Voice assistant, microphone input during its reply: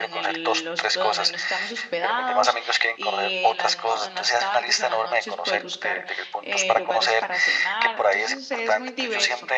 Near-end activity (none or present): present